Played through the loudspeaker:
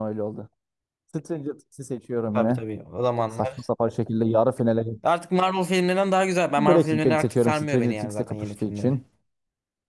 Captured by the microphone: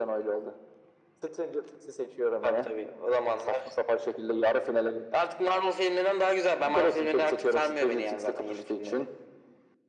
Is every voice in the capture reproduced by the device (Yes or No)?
Yes